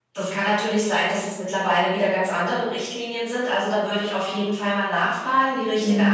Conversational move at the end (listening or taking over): listening